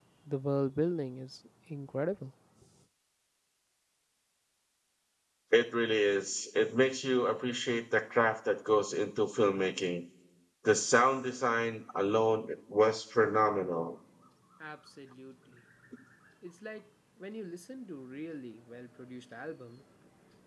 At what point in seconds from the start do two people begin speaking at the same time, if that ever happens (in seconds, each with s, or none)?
none